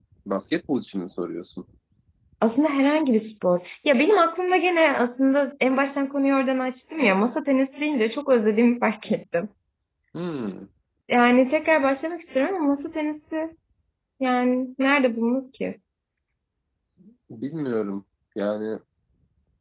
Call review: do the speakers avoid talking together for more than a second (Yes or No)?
Yes